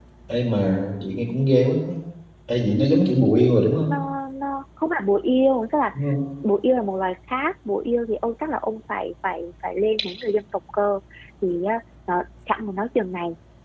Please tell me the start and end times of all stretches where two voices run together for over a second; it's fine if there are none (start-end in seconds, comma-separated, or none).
none